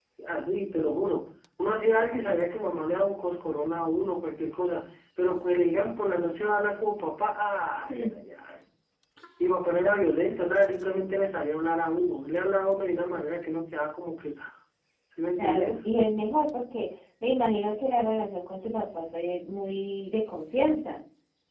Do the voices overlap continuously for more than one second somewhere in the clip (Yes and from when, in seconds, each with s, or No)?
No